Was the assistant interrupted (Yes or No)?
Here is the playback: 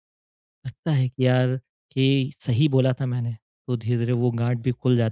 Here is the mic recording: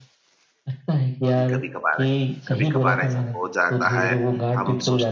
Yes